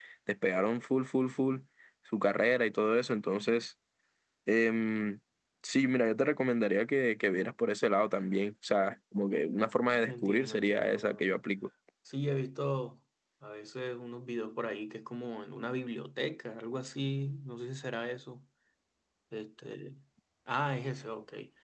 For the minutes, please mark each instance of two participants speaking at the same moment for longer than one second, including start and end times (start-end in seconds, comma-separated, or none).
10.1-11.2